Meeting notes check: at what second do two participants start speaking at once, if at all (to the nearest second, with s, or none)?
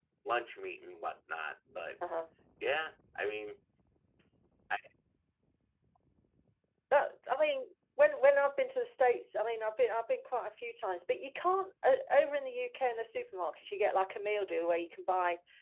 none